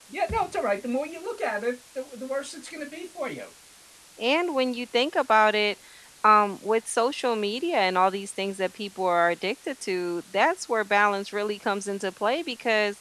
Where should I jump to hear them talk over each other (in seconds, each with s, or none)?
none